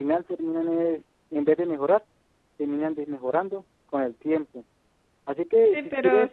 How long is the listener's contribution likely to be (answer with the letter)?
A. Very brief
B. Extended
B